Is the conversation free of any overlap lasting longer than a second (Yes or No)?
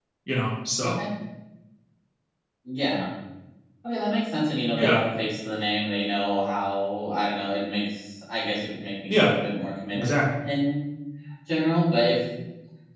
Yes